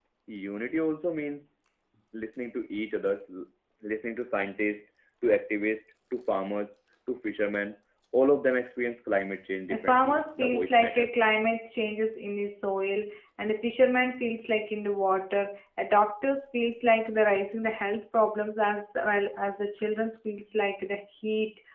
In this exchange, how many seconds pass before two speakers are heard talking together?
9.7 s

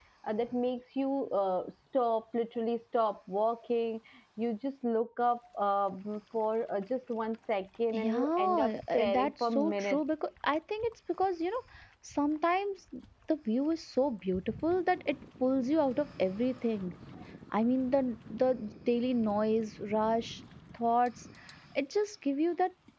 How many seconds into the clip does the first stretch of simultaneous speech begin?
7.9 s

